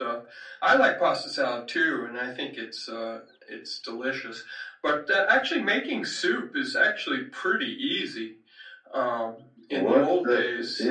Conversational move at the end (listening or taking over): taking over